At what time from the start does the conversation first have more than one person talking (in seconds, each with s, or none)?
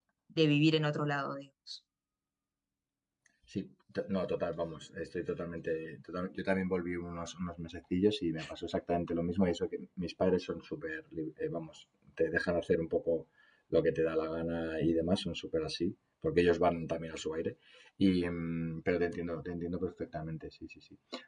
none